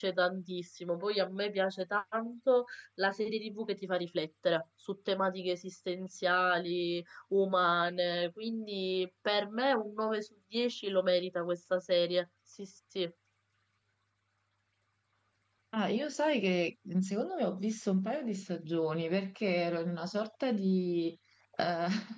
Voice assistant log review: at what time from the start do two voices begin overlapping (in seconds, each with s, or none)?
none